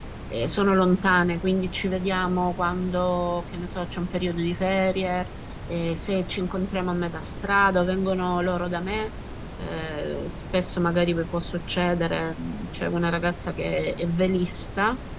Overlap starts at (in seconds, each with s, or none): none